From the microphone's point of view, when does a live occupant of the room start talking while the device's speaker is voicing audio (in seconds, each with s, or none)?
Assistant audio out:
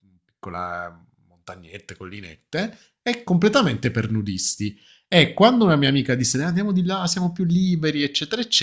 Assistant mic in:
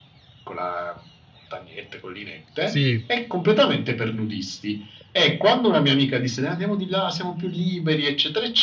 2.5 s